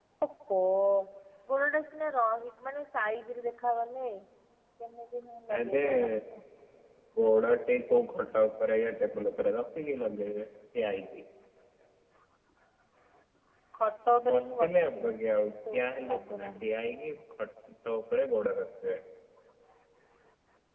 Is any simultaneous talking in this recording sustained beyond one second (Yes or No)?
Yes